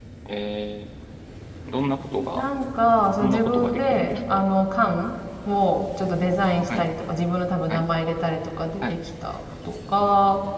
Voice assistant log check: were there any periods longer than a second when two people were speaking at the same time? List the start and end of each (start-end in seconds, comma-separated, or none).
3.2-4.4